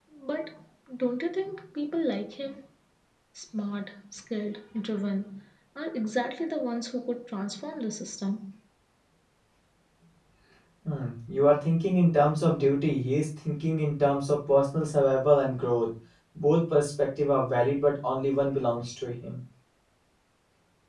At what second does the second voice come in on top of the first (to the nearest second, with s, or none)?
none